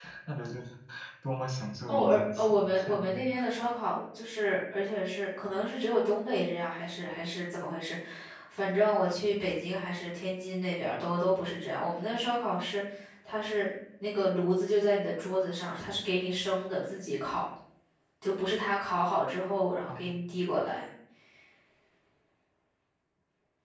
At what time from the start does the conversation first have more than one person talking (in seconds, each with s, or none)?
1.9 s